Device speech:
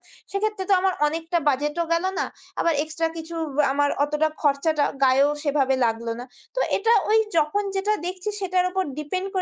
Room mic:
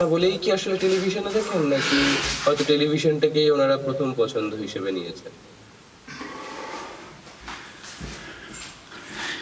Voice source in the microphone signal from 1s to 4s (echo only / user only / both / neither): user only